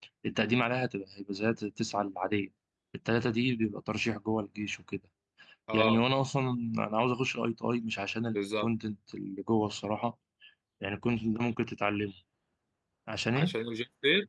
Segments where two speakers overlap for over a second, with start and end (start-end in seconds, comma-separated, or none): none